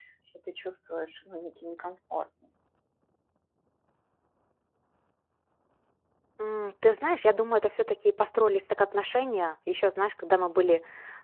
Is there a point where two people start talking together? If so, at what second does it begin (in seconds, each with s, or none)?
none